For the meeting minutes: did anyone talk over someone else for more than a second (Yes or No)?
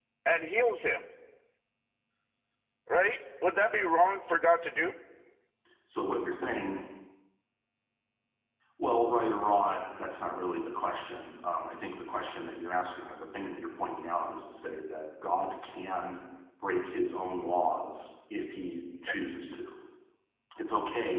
No